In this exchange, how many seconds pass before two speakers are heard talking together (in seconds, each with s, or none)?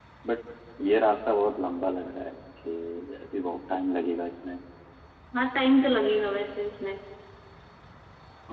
none